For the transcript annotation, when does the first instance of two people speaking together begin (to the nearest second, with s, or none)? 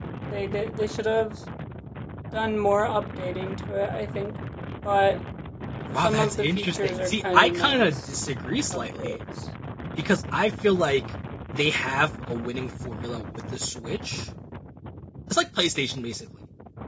6 s